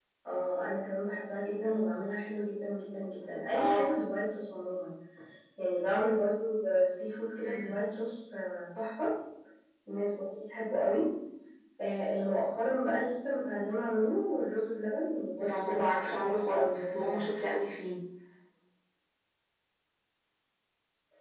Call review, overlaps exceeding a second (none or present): present